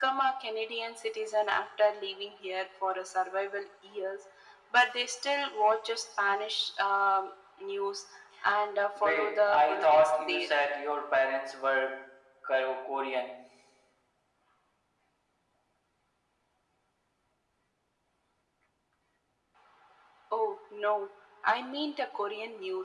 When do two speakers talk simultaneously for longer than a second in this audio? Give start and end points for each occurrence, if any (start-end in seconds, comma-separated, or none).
9.0-10.5